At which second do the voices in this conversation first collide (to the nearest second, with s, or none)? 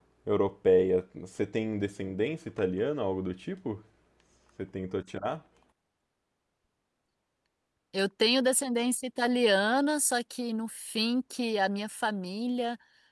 none